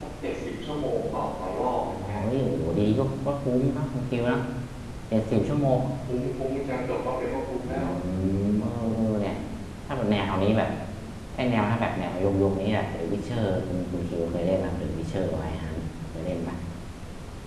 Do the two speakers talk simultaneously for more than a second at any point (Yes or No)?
No